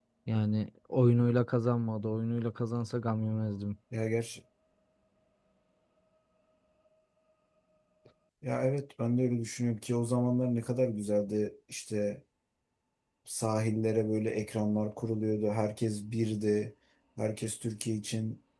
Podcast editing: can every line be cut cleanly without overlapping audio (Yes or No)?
Yes